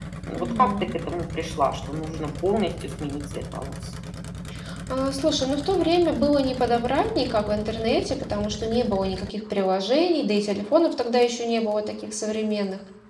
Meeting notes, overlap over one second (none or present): none